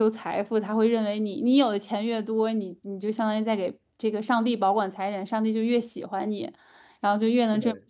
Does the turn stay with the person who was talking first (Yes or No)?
Yes